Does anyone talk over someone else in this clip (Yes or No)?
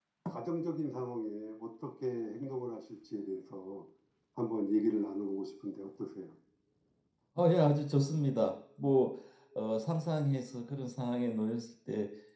No